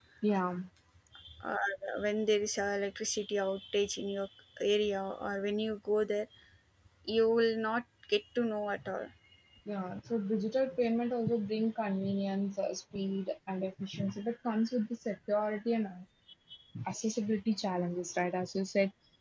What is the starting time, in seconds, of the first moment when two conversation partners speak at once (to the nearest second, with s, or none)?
none